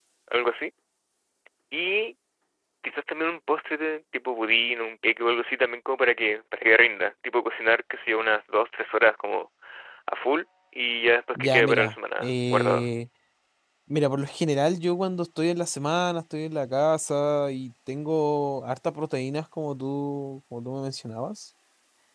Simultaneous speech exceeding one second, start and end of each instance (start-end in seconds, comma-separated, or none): 11.3-12.9